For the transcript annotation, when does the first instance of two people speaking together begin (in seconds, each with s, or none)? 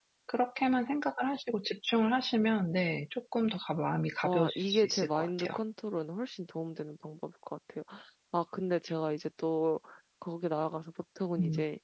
4.2 s